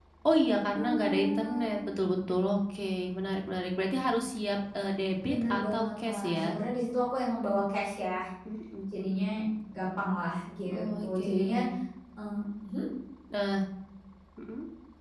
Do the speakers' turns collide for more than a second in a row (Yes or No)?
Yes